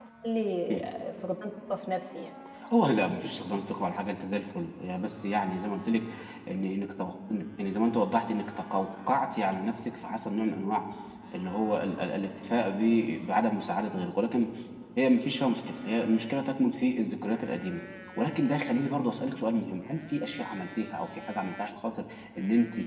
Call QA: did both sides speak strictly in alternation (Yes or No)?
Yes